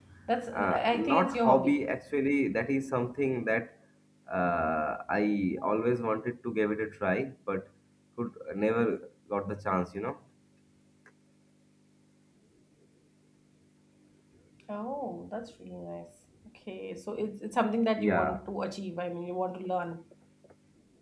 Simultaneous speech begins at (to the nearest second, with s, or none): 1 s